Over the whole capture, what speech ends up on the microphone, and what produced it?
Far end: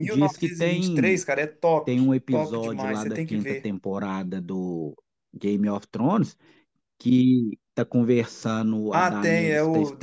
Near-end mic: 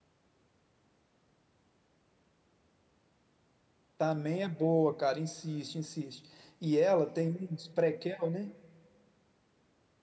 user only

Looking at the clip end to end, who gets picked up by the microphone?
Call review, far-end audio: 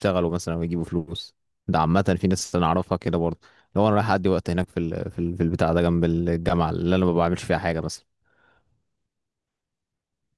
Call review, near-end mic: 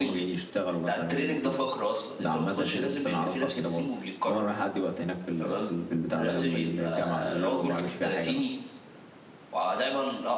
both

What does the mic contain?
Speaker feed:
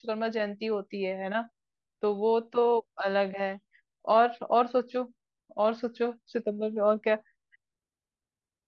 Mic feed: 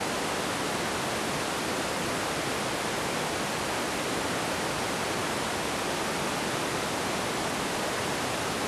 neither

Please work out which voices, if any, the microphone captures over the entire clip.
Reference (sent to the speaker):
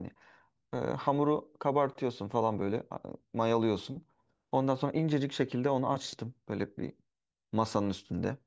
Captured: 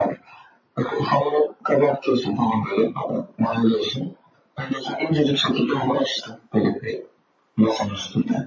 echo only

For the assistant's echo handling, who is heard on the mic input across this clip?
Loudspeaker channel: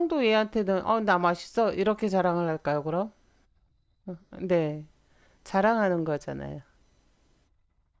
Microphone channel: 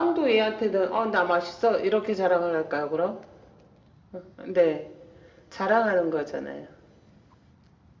echo only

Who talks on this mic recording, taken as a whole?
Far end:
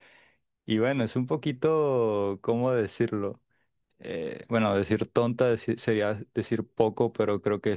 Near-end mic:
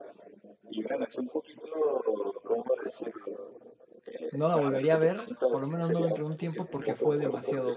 both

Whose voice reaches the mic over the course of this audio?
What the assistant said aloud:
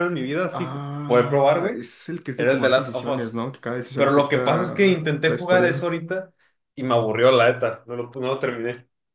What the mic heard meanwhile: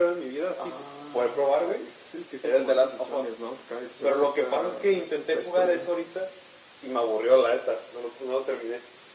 echo only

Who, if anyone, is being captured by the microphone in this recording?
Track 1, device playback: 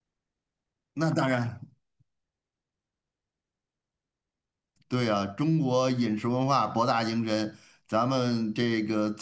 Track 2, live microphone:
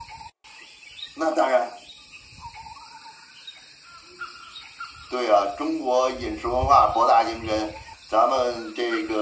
echo only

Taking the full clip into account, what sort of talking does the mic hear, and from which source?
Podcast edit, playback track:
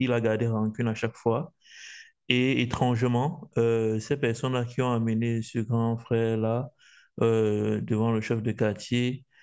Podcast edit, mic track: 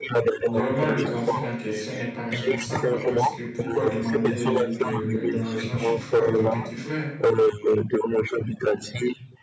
both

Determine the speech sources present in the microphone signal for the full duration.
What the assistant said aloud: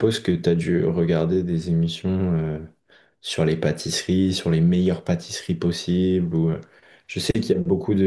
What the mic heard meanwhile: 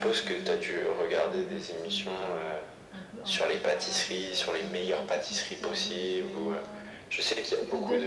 both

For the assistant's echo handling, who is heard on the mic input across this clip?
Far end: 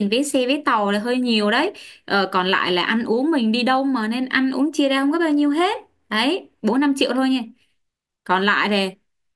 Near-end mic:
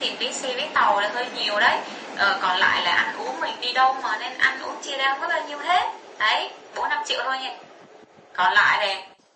echo only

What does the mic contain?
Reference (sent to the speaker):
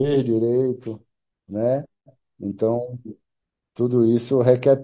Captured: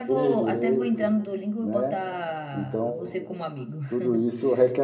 both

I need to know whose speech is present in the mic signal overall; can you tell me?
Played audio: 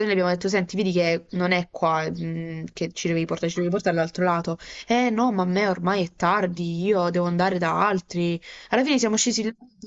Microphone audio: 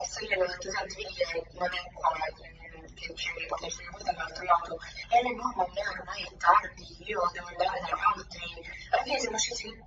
echo only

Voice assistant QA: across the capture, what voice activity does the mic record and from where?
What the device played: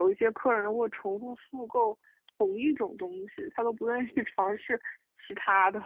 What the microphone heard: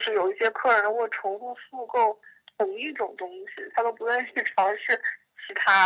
echo only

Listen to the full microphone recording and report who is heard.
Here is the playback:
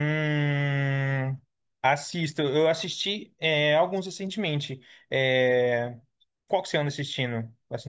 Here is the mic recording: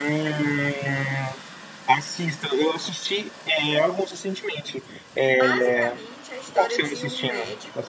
both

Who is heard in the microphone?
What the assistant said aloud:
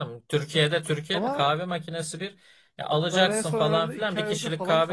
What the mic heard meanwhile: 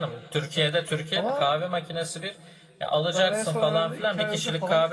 echo only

